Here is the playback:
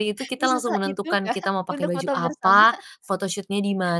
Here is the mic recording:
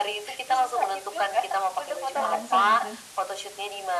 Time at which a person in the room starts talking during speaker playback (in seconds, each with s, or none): 2.2 s